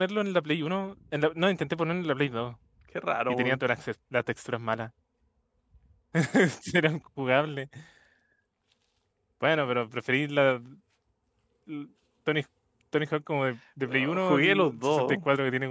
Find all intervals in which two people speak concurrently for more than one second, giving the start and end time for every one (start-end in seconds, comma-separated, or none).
13.9-15.2